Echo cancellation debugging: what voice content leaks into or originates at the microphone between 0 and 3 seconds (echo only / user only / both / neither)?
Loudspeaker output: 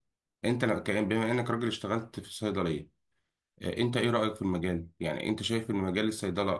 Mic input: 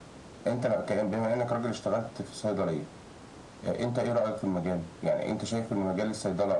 echo only